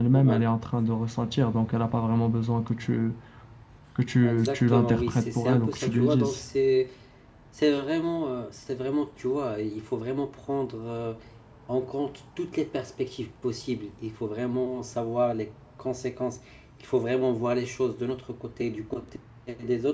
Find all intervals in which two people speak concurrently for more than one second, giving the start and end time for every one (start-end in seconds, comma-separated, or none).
4.2-6.4